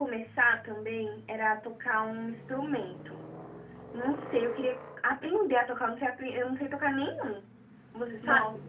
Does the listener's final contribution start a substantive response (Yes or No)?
Yes